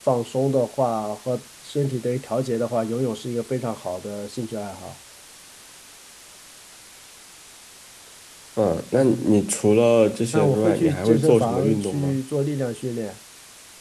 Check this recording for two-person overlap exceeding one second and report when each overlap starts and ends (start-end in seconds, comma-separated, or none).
10.3-12.2